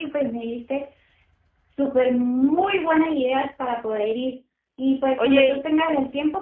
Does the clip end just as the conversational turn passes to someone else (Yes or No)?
No